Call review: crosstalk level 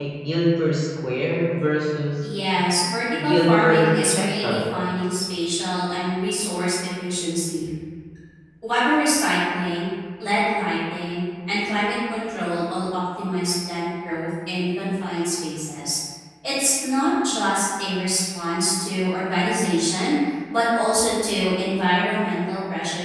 present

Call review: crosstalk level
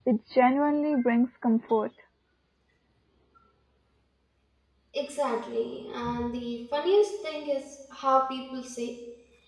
none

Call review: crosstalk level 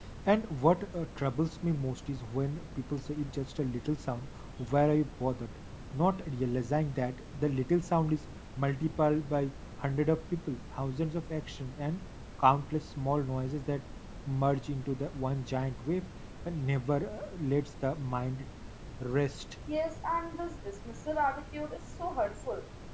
none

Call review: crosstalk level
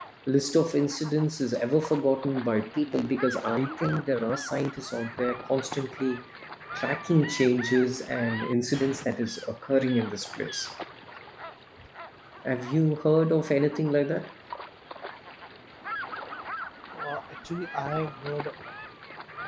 none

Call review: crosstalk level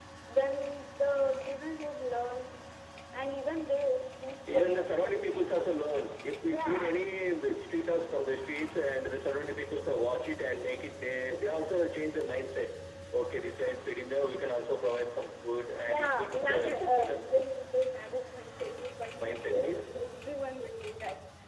present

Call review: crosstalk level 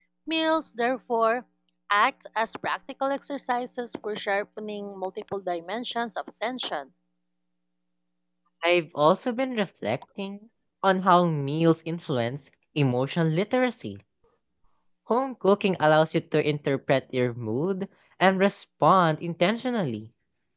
none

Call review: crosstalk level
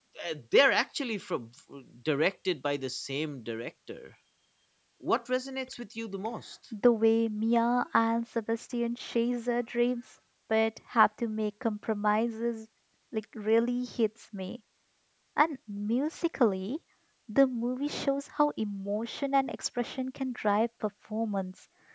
none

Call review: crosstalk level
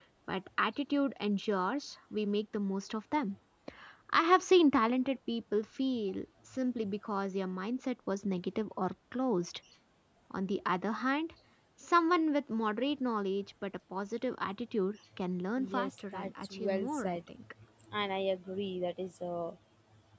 present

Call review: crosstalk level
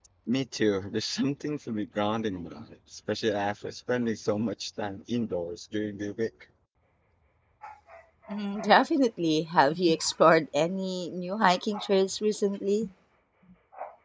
none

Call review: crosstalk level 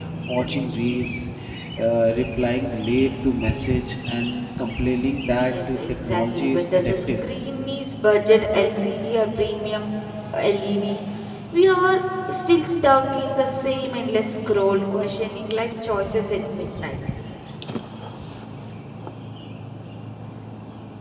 present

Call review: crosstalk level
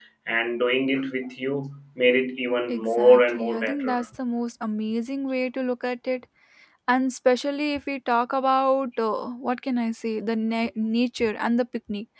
present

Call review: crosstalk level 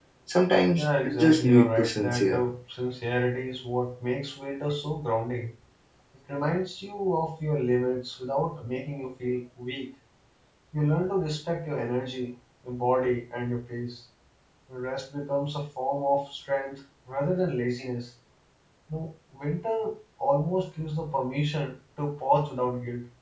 present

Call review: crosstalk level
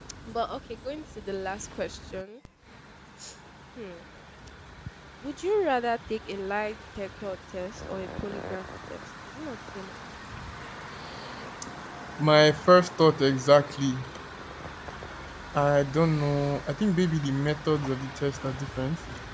none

